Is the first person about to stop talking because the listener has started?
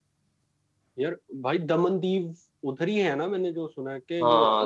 Yes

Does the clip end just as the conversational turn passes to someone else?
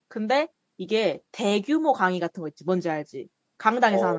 Yes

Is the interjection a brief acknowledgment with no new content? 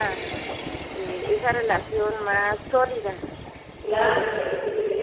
No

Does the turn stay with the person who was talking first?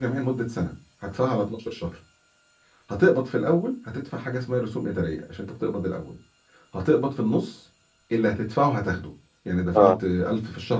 Yes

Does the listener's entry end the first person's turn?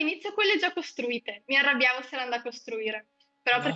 No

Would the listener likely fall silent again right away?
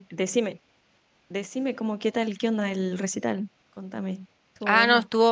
No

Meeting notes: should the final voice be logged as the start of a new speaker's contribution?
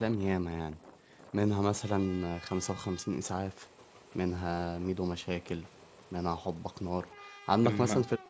No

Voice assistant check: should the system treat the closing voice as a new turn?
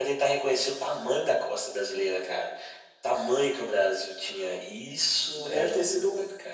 Yes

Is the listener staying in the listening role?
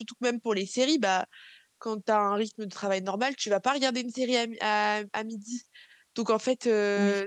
Yes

